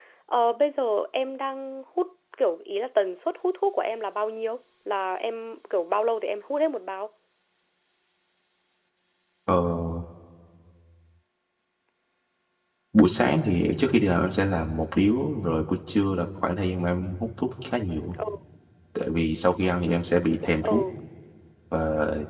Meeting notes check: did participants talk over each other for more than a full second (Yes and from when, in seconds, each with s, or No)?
No